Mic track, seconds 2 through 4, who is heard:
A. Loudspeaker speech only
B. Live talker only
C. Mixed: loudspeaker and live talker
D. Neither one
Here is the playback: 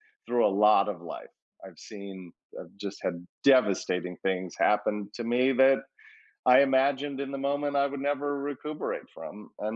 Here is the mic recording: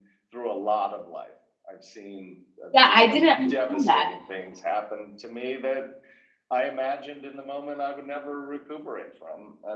C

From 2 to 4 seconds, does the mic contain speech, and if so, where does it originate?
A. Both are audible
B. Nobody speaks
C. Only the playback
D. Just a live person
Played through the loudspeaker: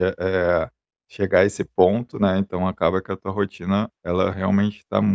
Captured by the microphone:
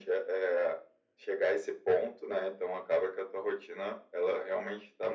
C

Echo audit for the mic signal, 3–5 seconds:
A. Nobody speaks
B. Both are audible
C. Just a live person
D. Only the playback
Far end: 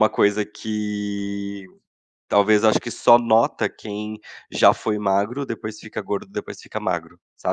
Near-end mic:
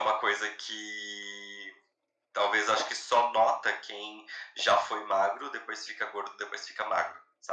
D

